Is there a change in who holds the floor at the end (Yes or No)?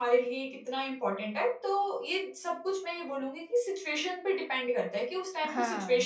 No